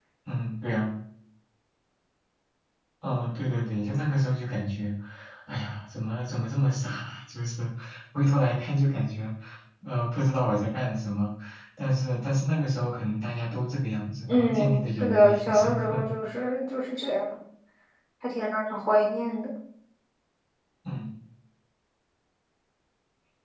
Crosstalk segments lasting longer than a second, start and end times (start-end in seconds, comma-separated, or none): 14.3-16.1